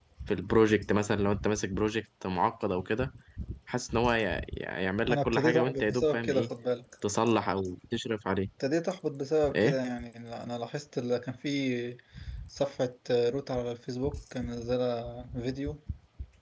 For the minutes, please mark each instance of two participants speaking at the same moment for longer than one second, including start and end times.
5.1-6.5

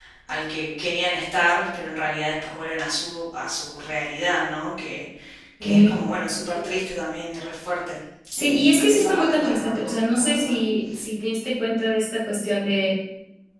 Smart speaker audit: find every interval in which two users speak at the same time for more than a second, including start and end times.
8.4-10.6

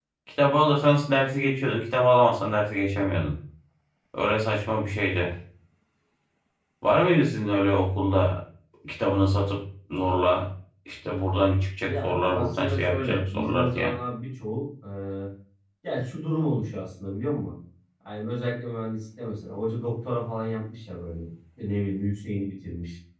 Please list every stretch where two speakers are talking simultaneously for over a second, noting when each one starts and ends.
11.8-13.9

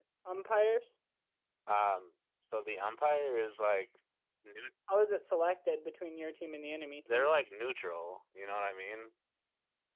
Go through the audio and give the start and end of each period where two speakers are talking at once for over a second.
none

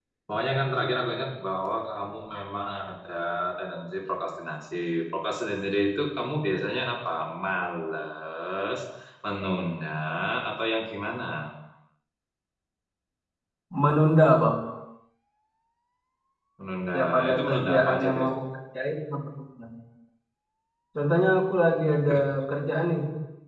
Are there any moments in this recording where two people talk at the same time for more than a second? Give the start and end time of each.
16.9-18.3

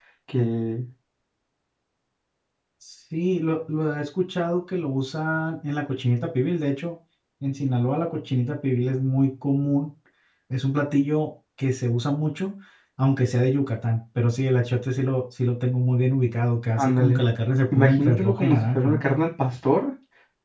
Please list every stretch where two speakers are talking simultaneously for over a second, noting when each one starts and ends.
17.7-19.1

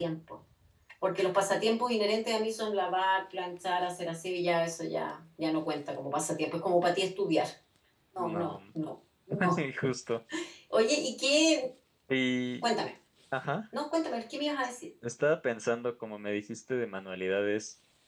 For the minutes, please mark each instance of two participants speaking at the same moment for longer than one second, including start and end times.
none

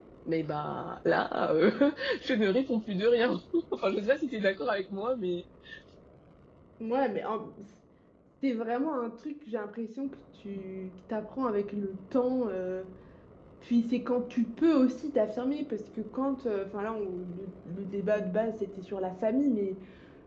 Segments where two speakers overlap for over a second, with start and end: none

